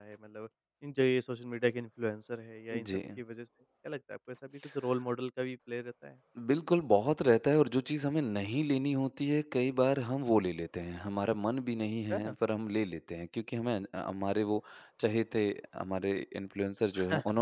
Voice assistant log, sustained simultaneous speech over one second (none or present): none